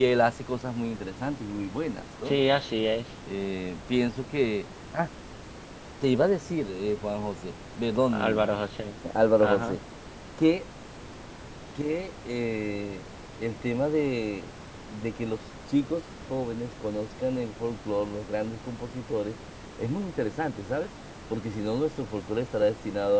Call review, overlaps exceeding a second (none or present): none